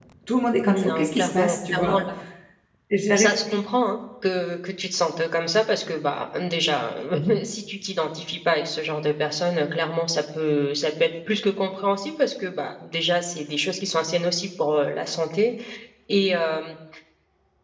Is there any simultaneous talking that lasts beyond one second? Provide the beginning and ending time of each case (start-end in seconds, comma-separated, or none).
0.6-2.0